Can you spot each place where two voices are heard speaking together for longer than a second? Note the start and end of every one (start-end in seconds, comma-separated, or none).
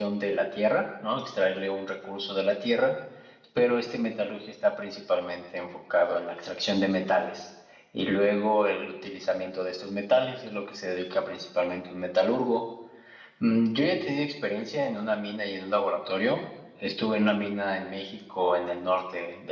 none